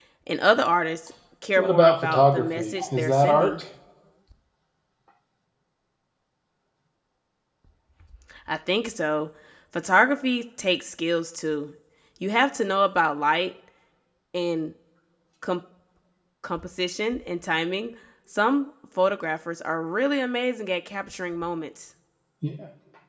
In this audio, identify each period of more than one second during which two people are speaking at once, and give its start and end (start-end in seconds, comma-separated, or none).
1.6-3.6